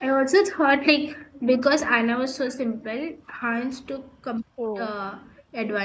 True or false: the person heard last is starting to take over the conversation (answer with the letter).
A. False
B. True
A